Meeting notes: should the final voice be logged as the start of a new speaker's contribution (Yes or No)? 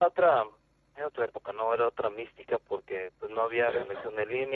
No